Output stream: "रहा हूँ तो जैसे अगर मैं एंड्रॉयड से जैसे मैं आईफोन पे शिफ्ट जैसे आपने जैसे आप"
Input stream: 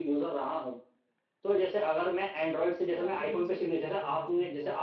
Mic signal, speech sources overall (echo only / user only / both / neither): both